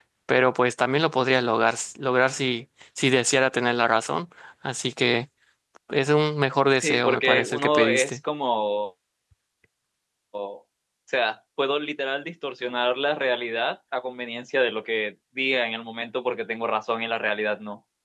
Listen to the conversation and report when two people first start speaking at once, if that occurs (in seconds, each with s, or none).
6.8 s